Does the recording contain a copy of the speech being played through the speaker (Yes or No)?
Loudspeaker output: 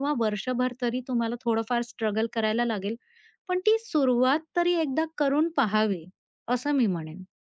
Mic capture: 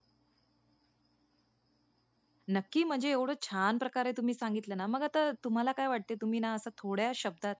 No